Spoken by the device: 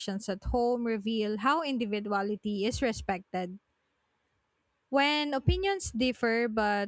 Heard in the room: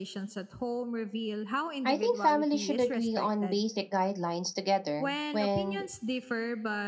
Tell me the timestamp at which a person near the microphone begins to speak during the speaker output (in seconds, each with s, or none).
1.8 s